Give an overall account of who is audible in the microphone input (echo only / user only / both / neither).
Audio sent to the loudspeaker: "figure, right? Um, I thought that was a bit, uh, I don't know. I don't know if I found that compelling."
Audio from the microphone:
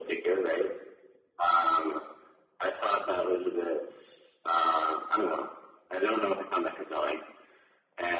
echo only